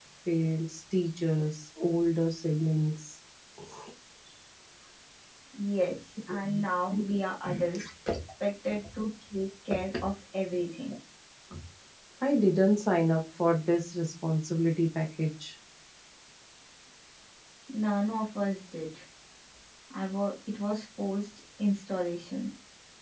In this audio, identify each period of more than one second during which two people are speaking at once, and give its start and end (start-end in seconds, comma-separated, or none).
none